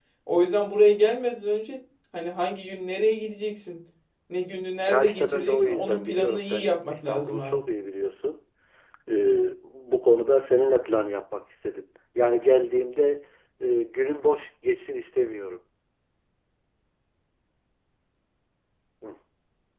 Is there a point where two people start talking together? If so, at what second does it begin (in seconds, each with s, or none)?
4.9 s